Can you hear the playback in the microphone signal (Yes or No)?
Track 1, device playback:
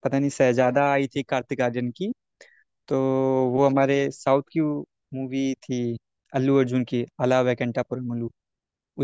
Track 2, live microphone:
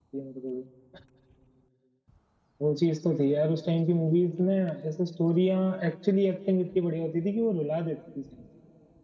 No